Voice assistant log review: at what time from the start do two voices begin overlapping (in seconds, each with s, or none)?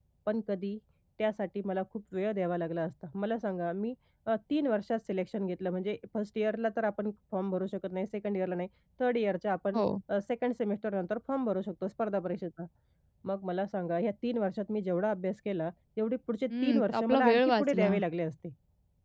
16.5 s